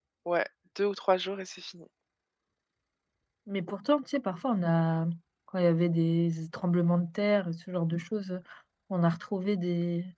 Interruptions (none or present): none